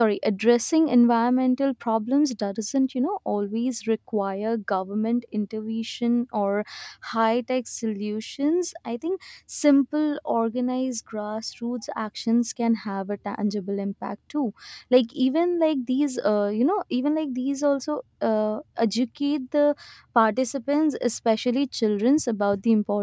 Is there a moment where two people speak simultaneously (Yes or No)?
No